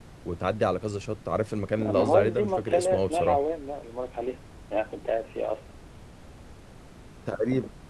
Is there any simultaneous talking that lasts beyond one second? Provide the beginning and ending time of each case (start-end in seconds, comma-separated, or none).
1.8-3.4